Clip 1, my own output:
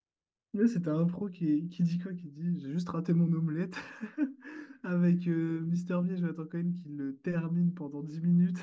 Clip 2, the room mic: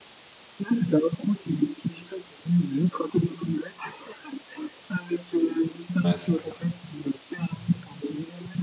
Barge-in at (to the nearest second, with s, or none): 6 s